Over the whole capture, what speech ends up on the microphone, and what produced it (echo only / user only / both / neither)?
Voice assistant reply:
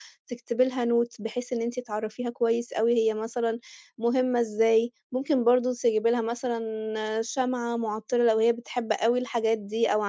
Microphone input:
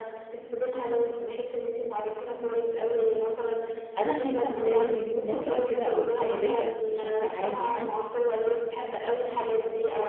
both